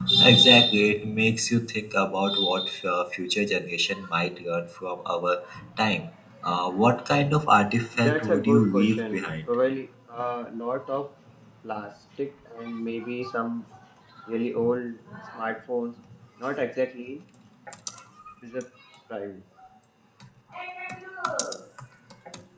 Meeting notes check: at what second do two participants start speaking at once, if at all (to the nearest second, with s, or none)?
8 s